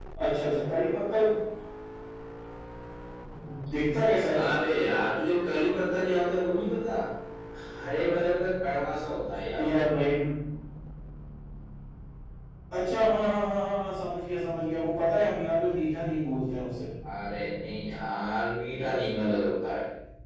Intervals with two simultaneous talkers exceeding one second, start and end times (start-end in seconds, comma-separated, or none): none